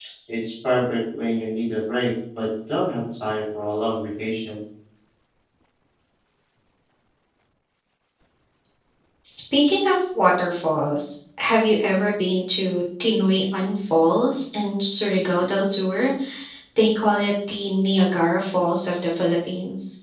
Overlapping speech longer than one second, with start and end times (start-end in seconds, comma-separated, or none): none